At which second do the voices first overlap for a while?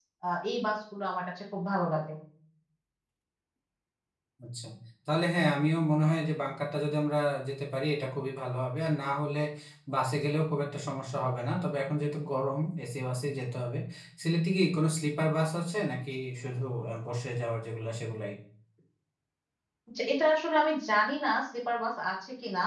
none

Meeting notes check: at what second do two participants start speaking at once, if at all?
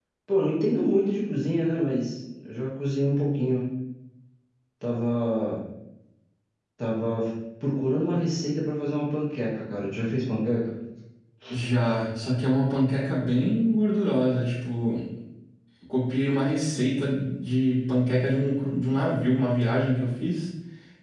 none

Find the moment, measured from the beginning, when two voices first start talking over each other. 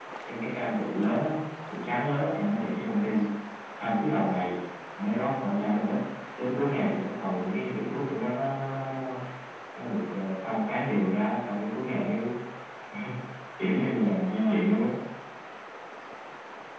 none

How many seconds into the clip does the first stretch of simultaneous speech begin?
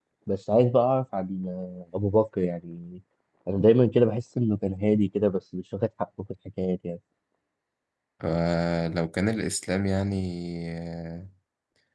none

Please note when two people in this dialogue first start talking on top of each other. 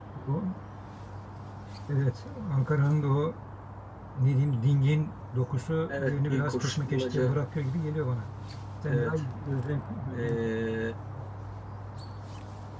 5.9 s

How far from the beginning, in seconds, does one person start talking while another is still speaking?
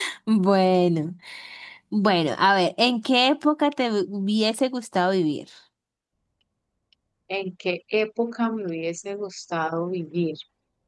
none

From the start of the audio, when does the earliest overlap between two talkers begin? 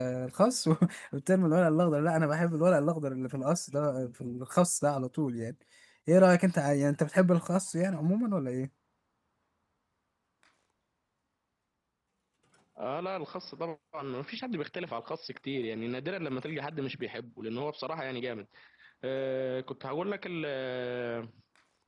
none

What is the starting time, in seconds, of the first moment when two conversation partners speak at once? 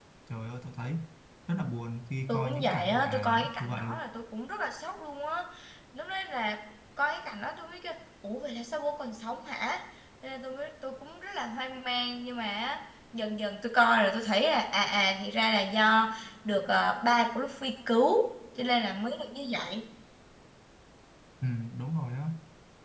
2.3 s

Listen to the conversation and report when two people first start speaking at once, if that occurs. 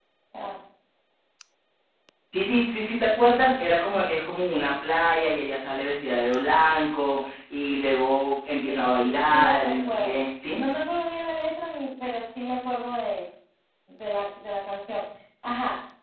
8.7 s

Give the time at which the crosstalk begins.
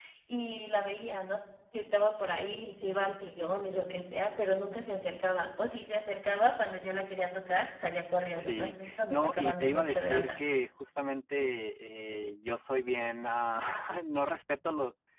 8.4 s

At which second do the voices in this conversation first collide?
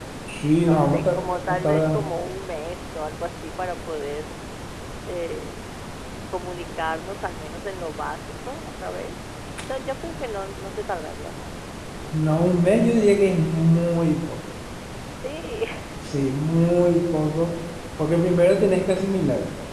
0.6 s

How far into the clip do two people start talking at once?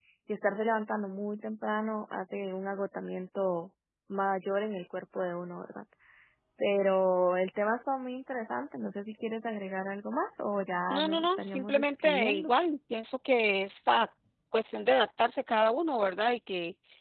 10.9 s

